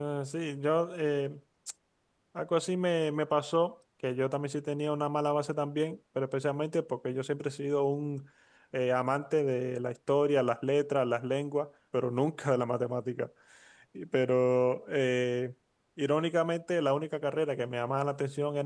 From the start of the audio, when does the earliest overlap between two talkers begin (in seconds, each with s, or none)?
none